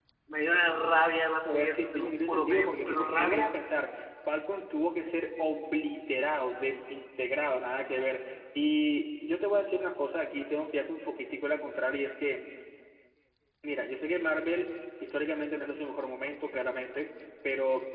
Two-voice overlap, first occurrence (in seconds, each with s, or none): 1.4 s